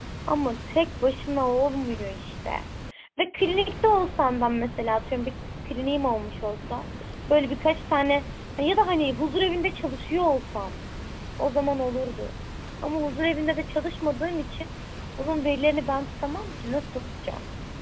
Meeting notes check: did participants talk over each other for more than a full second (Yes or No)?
No